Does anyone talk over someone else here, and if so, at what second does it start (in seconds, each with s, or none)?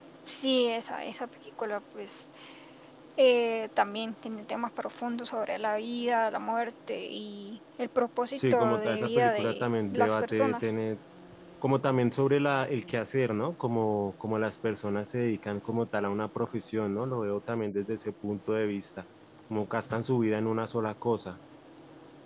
8.3 s